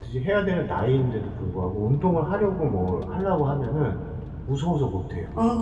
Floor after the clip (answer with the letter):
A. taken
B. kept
A